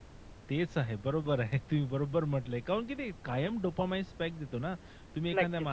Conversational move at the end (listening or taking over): listening